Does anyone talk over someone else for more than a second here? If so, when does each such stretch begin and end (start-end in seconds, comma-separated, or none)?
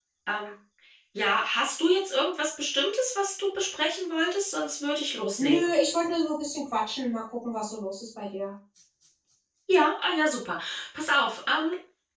none